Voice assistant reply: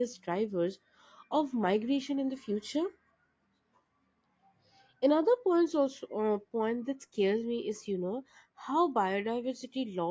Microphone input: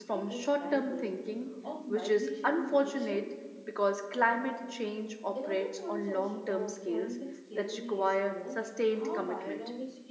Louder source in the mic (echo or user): user